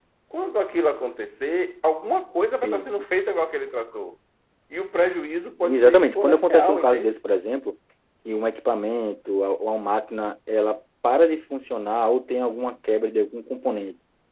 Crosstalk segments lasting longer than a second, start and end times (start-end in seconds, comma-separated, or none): 5.6-7.2